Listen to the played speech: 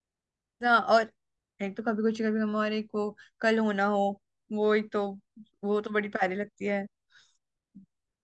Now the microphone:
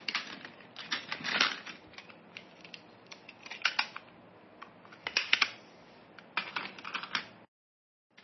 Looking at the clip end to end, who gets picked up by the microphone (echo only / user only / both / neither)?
neither